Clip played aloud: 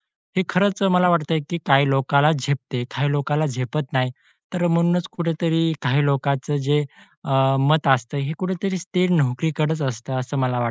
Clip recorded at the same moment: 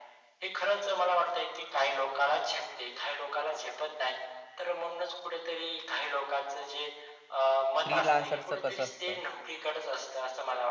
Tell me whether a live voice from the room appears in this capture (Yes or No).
Yes